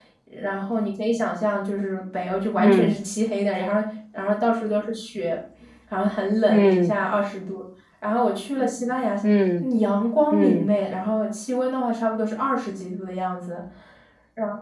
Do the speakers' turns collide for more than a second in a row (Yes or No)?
No